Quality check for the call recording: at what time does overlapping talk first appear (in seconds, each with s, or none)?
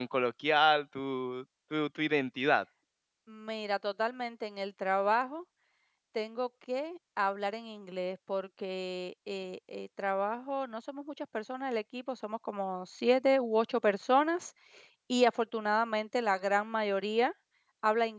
none